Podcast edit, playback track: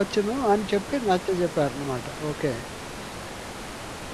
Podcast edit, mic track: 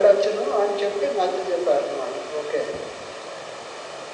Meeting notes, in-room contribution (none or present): none